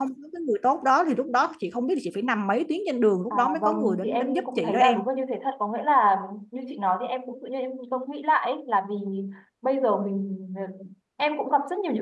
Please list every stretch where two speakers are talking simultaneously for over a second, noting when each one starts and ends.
3.3-5.0

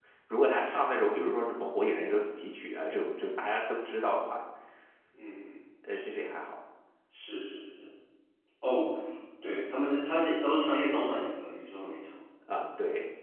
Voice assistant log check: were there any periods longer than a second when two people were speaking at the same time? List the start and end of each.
none

